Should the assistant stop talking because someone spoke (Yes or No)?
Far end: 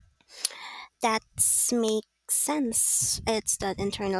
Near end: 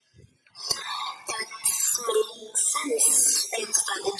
No